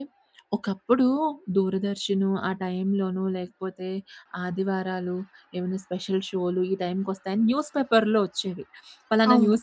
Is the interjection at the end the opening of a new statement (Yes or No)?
No